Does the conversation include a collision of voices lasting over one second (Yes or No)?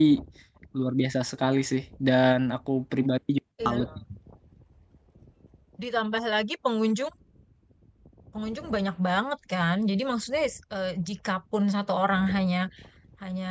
No